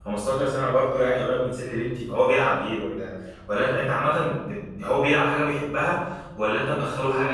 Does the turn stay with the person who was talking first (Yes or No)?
No